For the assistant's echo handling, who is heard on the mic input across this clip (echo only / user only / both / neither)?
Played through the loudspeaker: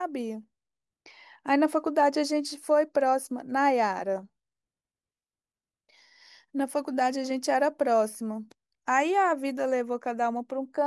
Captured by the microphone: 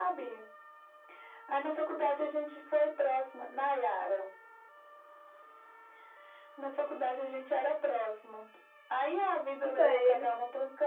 both